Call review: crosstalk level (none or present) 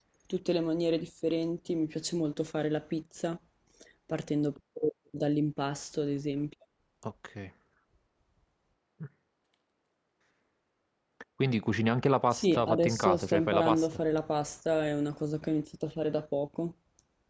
present